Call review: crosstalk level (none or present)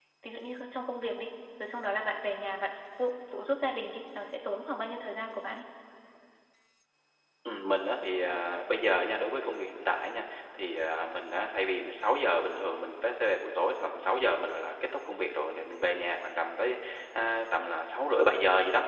none